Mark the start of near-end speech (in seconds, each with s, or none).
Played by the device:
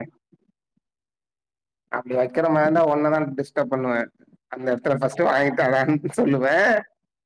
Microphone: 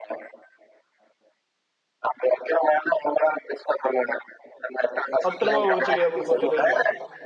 5.3 s